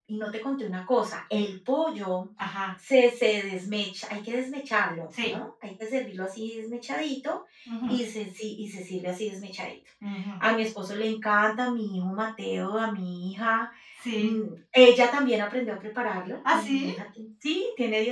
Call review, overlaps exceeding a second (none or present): none